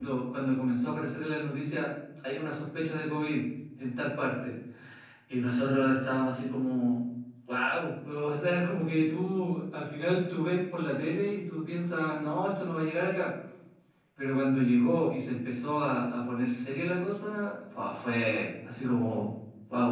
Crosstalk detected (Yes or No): No